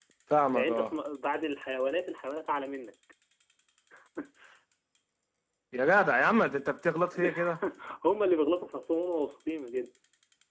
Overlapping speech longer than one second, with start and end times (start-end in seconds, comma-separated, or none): none